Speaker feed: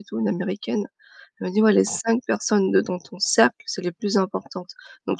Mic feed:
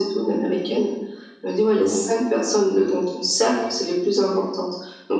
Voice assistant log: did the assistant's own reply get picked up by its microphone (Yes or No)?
Yes